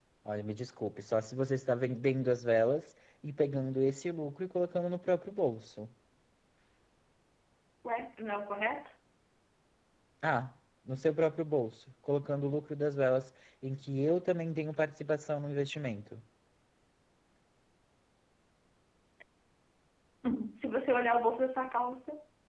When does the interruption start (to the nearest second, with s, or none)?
none